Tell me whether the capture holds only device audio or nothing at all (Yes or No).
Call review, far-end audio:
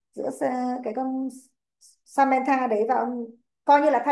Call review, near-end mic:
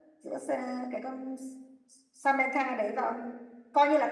Yes